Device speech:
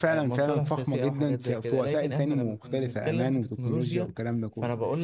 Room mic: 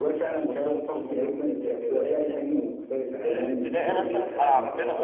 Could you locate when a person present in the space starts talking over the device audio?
3 s

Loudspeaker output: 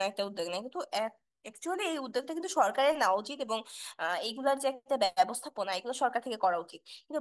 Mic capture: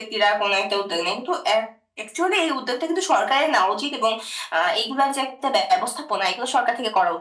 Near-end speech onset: none

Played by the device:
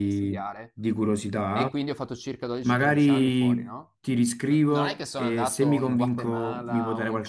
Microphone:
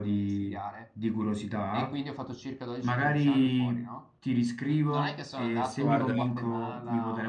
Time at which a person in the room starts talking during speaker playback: 6 s

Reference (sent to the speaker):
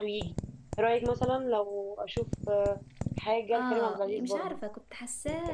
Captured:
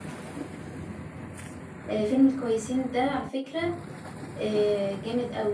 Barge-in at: 2 s

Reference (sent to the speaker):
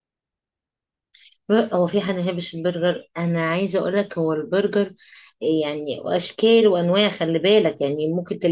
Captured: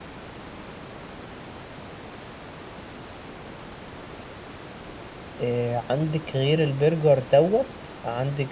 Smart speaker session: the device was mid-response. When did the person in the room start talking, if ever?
5 s

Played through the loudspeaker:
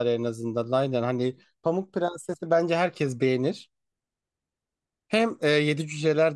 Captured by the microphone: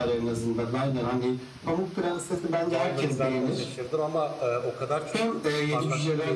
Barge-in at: 3 s

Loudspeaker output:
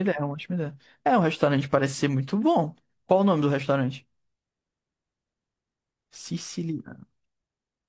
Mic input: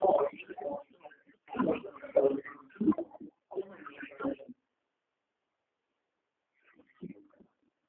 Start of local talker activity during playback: none

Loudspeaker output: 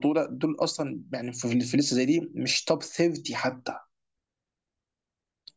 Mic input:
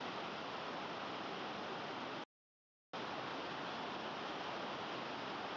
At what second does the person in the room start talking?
none

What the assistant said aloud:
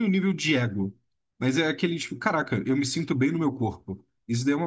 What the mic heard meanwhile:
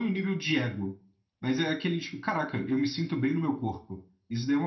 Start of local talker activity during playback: none

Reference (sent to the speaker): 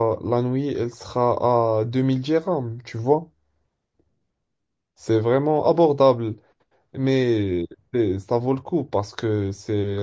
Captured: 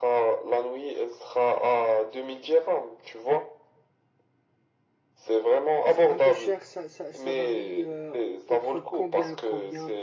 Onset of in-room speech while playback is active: 6 s

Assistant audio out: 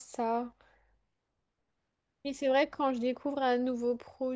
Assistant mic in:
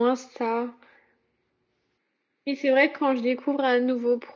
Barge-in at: none

